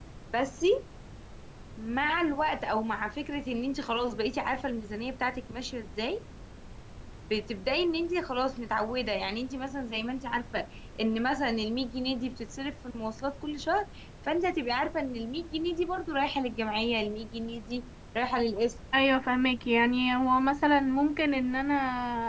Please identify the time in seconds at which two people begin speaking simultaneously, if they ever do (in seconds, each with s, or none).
none